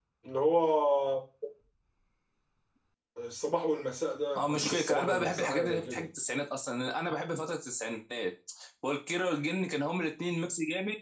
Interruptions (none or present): present